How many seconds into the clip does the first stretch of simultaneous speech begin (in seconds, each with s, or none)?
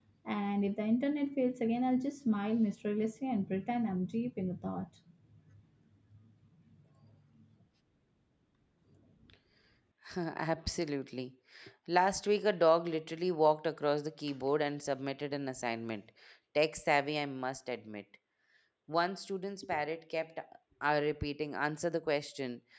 none